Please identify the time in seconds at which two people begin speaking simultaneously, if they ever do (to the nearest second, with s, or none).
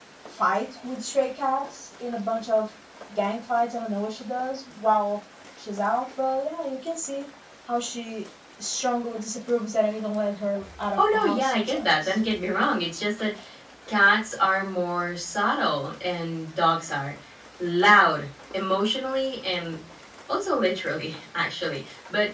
11 s